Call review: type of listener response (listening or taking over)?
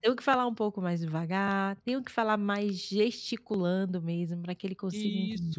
taking over